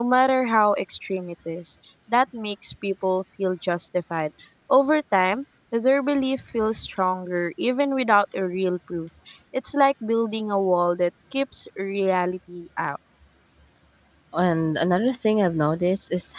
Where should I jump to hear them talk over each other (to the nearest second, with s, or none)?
none